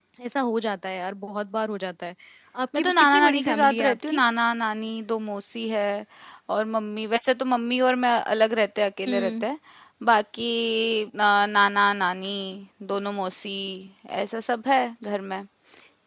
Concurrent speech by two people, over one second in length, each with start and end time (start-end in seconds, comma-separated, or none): 2.8-4.2